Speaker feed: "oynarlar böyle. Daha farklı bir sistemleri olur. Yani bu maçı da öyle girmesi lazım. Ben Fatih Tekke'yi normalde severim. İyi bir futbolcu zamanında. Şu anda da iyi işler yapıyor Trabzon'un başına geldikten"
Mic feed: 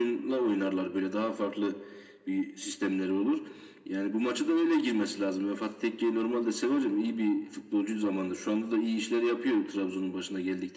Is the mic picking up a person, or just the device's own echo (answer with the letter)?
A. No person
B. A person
A